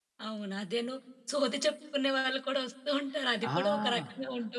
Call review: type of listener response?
taking over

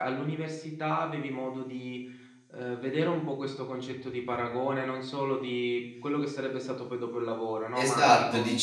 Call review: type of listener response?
taking over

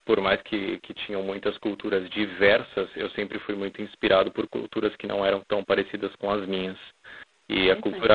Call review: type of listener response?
listening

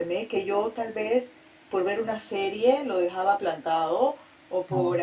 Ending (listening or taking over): listening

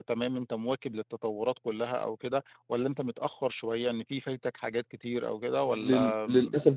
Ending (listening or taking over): taking over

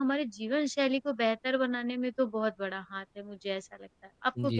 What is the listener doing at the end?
taking over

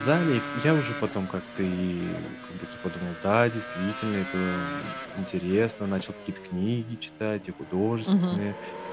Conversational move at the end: listening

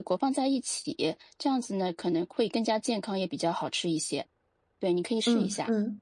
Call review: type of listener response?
taking over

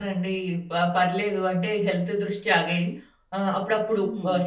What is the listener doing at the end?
listening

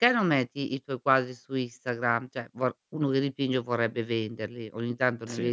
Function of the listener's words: listening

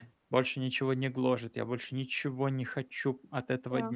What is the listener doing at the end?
listening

